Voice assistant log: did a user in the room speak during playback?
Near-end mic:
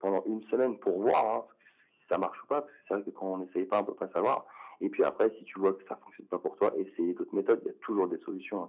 No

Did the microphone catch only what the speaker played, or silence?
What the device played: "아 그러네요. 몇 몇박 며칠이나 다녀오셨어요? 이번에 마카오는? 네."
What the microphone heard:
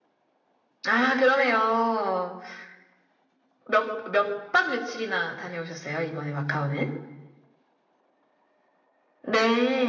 Yes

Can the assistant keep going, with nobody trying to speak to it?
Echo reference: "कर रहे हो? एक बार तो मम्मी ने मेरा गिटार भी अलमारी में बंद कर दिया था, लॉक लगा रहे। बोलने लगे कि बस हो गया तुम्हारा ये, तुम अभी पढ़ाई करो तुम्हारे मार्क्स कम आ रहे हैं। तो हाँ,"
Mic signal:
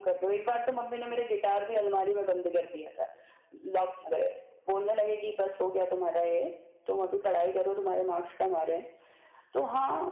Yes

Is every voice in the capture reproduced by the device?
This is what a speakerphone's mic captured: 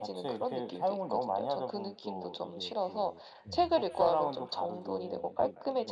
No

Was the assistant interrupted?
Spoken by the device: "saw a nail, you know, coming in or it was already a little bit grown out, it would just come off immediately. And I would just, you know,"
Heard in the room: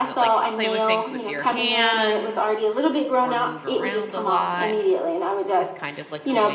Yes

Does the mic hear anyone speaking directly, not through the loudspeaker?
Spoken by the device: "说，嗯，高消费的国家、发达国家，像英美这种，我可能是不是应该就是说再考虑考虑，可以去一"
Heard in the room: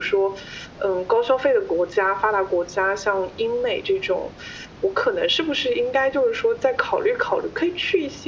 No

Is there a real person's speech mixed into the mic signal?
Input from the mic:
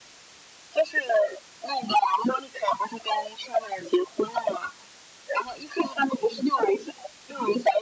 No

